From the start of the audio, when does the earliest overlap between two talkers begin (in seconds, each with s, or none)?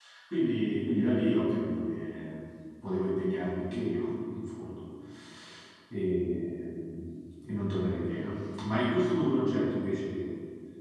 none